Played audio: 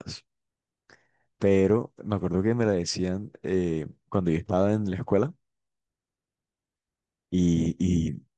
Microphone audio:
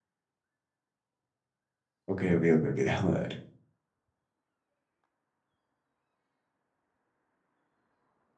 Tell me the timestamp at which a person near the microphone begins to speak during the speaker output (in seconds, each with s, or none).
2.1 s